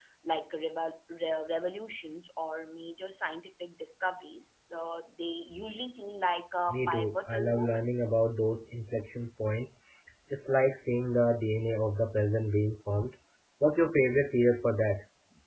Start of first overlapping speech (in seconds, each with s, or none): 6.7 s